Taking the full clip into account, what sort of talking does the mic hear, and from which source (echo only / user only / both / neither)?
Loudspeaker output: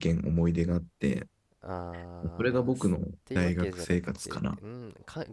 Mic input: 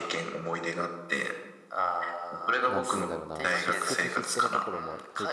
both